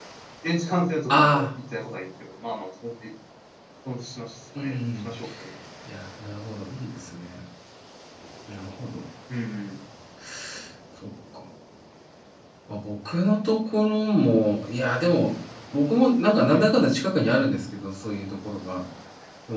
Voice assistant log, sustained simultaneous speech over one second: none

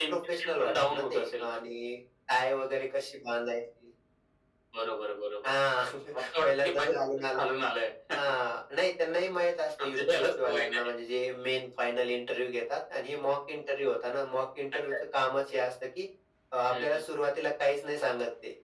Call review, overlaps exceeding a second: present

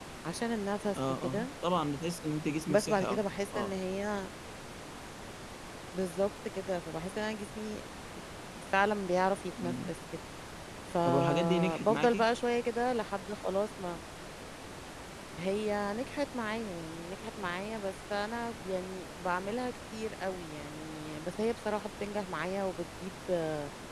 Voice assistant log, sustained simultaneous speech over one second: present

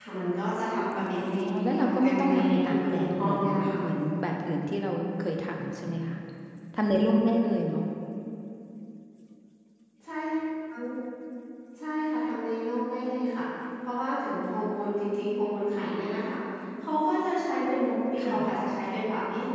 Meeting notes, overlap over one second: present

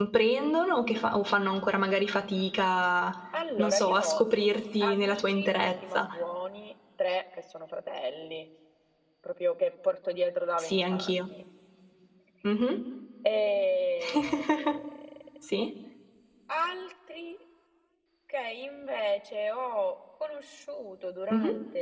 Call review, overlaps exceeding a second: present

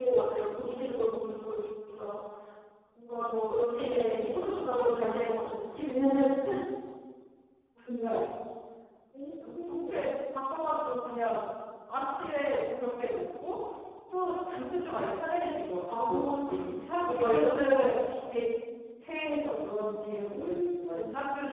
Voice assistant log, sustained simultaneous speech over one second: present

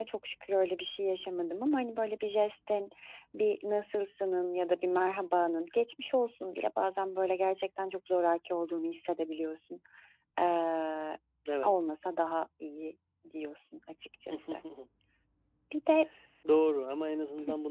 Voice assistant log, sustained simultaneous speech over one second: none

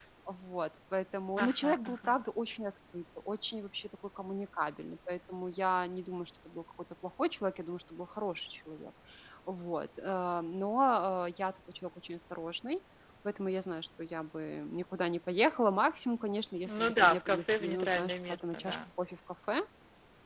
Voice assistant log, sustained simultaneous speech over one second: present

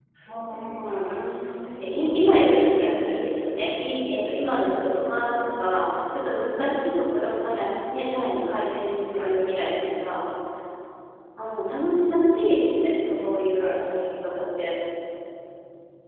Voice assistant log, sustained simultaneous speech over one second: present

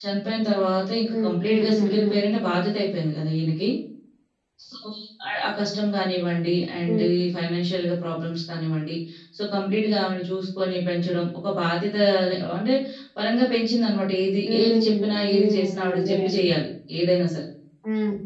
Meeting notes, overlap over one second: present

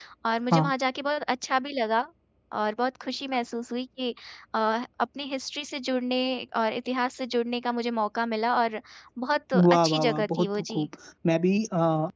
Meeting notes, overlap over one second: present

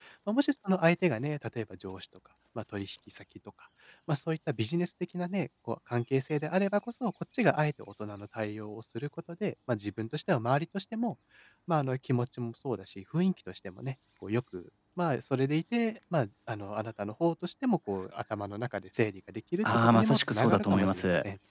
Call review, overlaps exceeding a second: present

